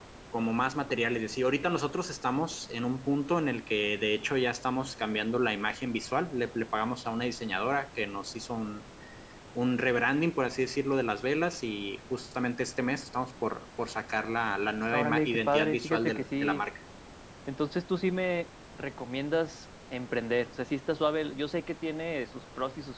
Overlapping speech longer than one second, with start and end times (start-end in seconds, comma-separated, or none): 14.9-16.6